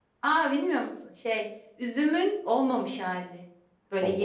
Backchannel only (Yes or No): Yes